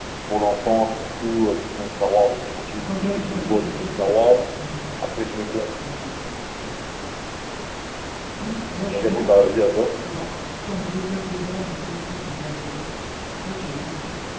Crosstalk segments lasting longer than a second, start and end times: 2.8-4.4

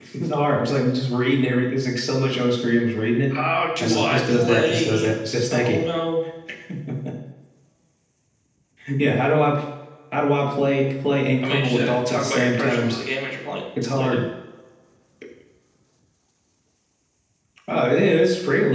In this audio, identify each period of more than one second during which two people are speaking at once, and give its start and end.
3.8-5.1, 11.4-13.0

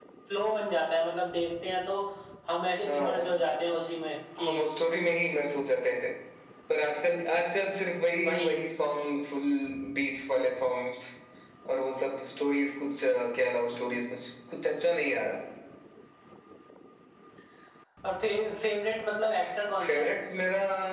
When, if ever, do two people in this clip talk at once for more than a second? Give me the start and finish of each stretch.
none

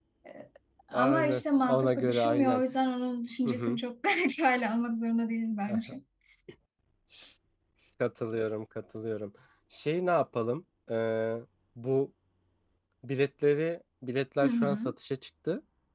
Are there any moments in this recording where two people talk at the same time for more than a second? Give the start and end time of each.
0.9-2.6

